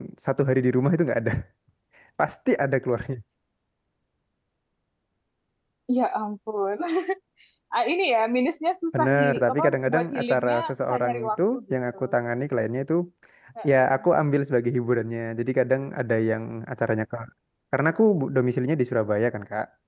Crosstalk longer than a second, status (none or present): present